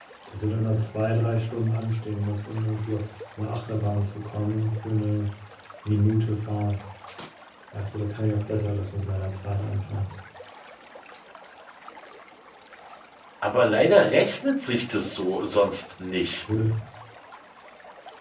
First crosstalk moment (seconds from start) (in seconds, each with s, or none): none